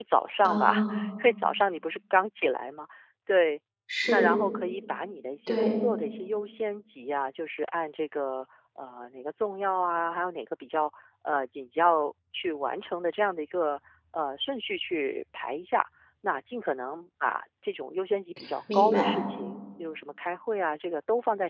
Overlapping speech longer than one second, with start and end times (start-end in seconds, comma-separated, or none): none